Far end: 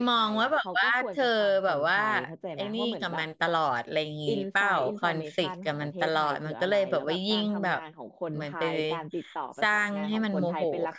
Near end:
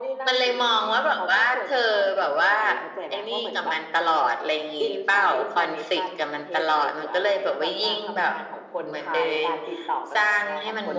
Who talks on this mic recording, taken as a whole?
echo only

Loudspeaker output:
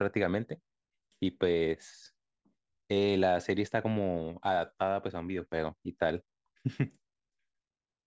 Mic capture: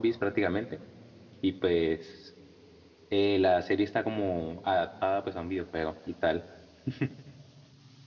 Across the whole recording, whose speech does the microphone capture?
echo only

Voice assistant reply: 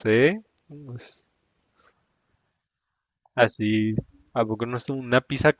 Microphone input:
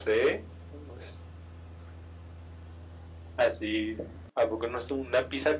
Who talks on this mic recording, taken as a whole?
echo only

